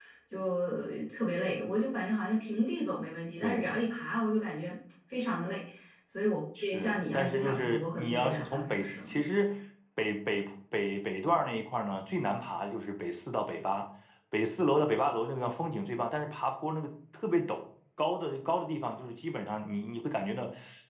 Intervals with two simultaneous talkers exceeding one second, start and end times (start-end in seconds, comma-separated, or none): 6.6-9.2